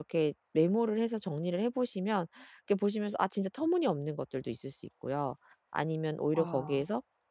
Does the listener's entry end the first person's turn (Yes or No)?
No